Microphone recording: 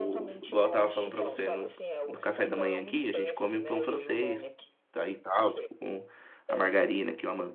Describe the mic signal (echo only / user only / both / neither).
both